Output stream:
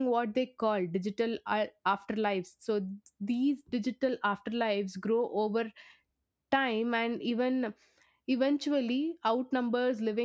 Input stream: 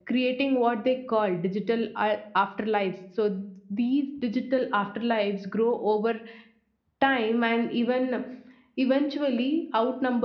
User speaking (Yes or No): No